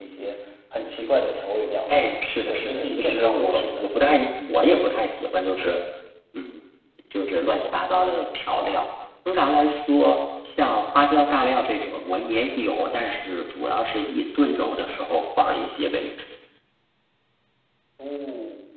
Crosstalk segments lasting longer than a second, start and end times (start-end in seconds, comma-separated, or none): 2.5-3.9